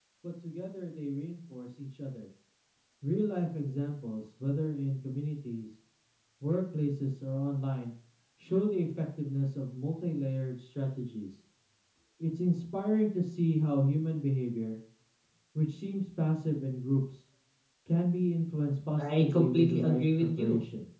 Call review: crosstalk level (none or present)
present